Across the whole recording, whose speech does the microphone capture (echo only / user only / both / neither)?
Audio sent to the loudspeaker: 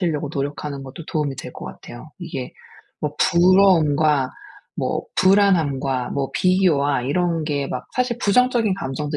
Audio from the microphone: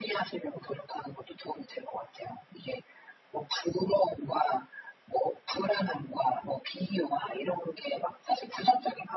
echo only